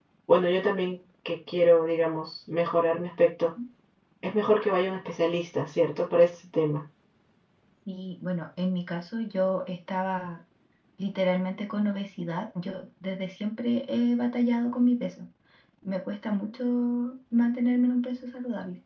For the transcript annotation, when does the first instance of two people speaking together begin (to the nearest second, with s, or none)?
none